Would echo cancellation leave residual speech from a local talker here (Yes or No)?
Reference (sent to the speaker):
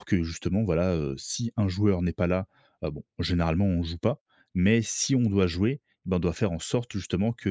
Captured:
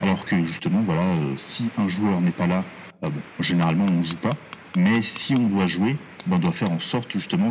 No